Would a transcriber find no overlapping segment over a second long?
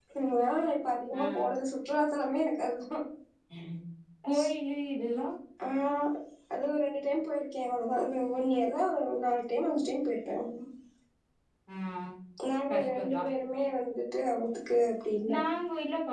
Yes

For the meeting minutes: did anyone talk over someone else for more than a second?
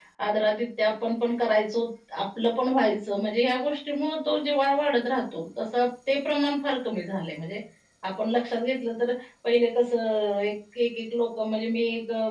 No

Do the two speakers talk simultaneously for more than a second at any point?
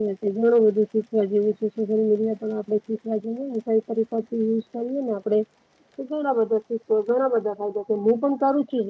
No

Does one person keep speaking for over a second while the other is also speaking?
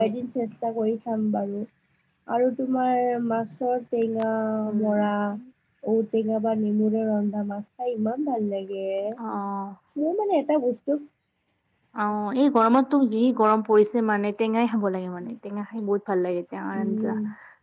No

